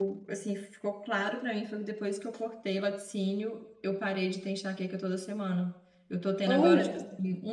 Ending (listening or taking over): listening